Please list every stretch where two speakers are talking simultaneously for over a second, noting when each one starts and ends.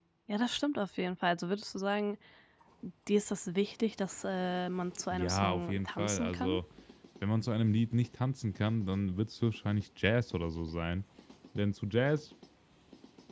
5.1-6.6

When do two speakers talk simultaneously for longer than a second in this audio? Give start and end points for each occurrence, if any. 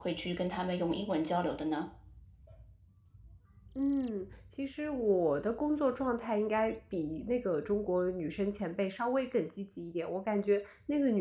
none

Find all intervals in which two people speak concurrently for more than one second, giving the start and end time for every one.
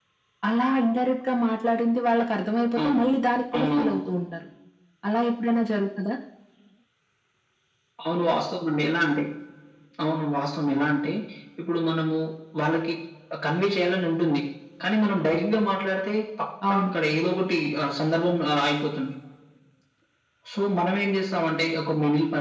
none

